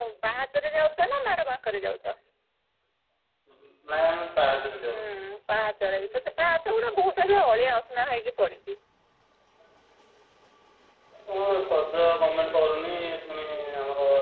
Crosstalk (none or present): none